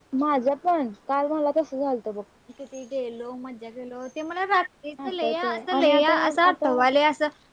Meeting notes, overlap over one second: present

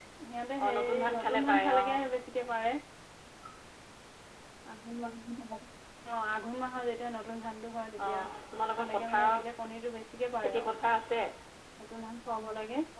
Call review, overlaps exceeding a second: present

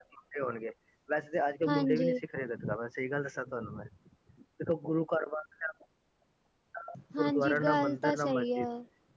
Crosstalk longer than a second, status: present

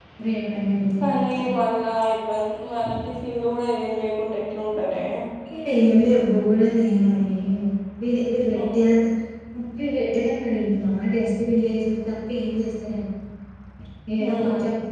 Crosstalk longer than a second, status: none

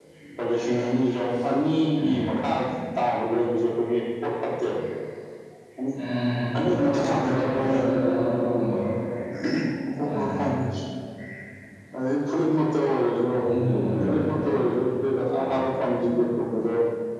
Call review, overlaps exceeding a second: present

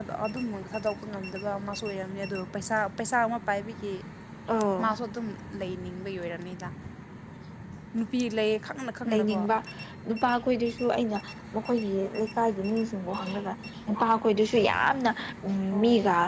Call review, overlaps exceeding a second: none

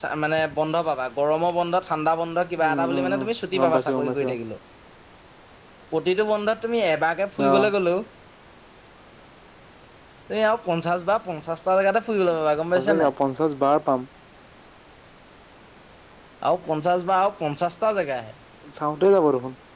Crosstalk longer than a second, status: present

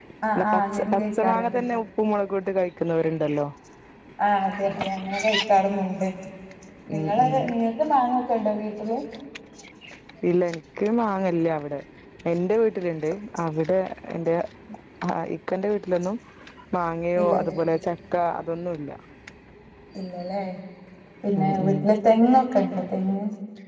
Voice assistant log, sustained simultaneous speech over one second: present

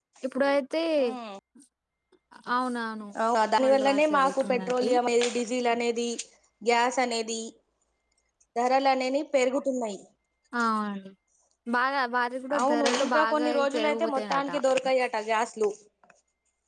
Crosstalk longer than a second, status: present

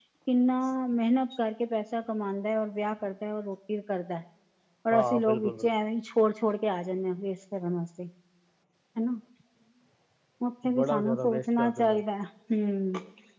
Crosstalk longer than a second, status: present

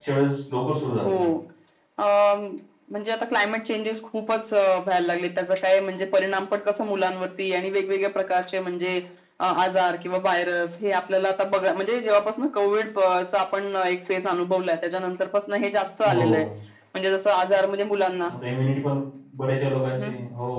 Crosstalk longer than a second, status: none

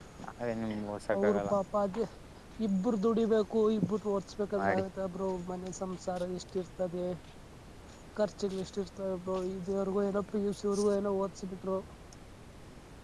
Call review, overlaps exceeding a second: none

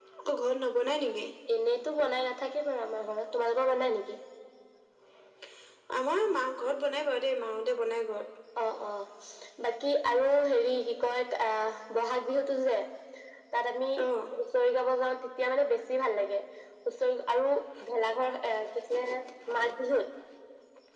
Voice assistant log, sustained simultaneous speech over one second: none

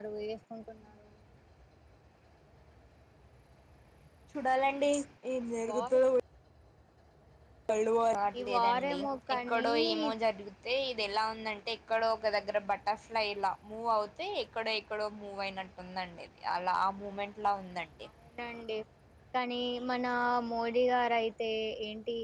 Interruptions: present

